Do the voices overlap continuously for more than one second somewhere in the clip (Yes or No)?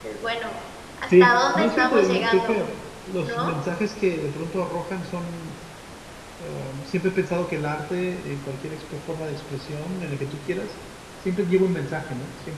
Yes